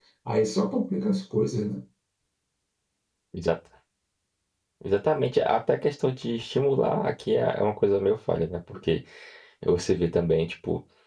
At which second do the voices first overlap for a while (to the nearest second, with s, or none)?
none